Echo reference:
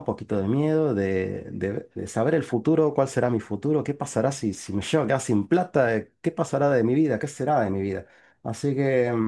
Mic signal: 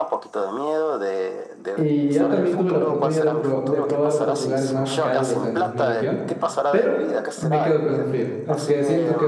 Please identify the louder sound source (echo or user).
user